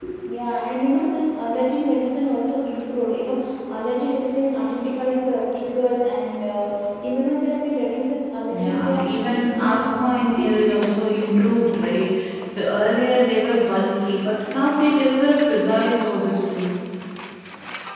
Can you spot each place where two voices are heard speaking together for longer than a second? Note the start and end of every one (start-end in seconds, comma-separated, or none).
8.5-10.0